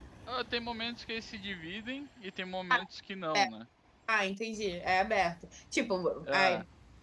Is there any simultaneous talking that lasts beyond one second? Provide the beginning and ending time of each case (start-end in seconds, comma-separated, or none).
none